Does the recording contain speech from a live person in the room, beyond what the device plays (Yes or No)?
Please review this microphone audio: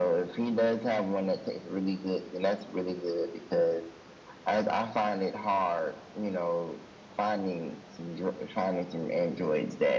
No